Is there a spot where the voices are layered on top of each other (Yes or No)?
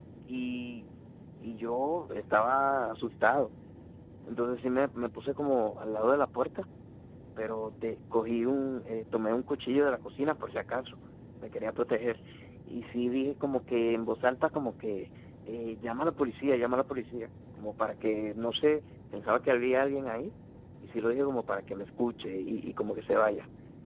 No